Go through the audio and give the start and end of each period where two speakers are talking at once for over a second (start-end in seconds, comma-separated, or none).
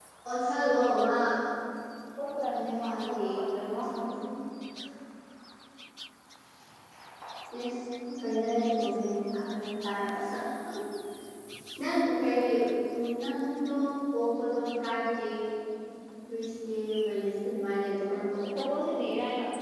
2.8-4.2